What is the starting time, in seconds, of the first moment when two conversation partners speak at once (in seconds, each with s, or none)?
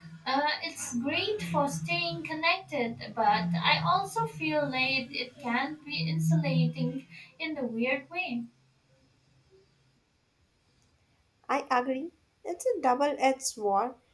none